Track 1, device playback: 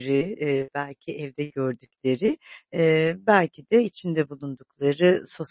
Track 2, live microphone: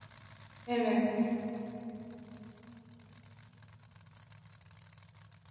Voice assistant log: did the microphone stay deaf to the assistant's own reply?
Yes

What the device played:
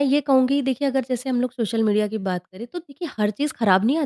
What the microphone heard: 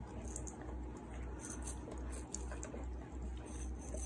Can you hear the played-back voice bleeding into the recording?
No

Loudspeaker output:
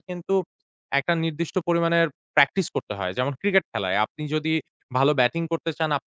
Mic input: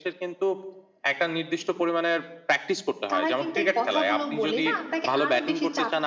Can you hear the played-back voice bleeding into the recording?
Yes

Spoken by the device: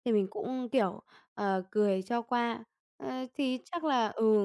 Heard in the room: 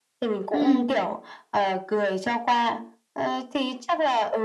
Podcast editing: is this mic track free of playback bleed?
No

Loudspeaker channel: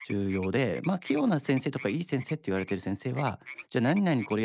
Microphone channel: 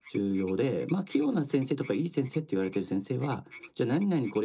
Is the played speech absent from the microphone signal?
No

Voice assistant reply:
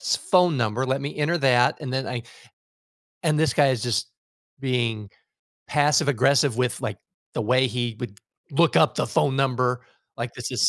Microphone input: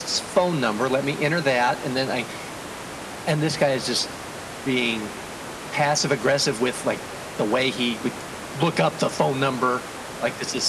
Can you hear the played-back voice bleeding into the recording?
Yes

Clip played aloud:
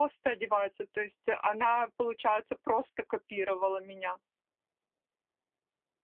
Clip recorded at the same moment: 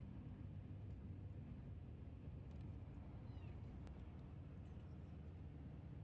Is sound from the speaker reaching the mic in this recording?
No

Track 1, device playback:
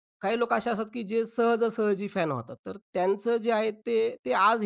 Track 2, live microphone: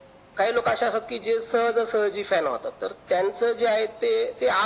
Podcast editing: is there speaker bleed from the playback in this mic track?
Yes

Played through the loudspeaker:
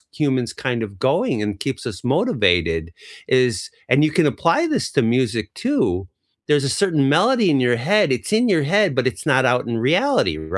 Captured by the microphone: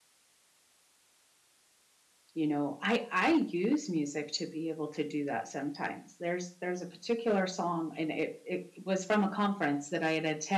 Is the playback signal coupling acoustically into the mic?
No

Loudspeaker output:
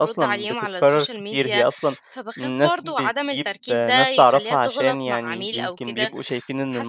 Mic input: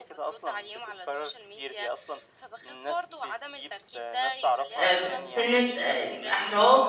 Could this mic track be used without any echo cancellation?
No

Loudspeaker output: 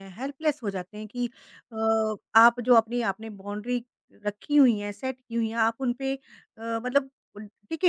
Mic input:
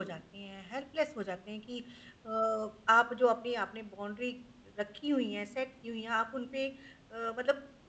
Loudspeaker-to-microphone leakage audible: Yes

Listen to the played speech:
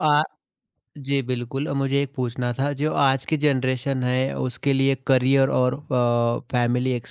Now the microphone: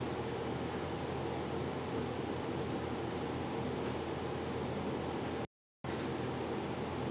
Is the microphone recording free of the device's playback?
Yes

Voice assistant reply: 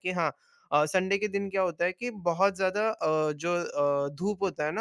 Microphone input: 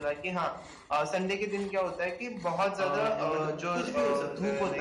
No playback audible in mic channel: No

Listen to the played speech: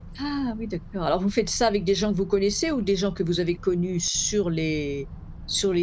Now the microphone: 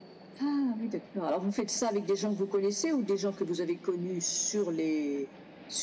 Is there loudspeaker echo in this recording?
Yes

